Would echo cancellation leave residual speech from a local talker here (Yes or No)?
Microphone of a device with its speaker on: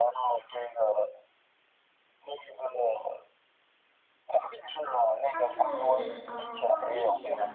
Yes